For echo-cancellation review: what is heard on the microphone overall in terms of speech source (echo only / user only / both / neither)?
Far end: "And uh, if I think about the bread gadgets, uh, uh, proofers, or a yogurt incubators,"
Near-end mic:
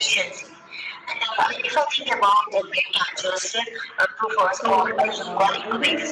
both